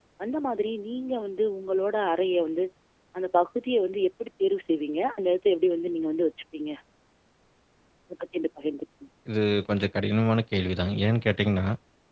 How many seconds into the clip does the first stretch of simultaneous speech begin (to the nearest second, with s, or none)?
none